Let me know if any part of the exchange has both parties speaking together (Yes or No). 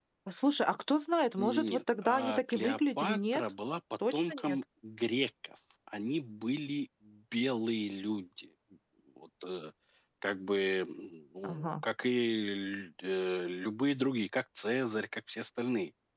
Yes